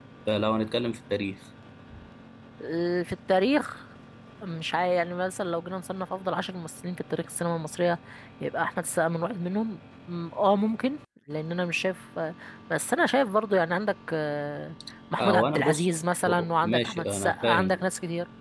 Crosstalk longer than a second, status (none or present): present